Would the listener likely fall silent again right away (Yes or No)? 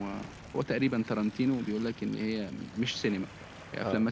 Yes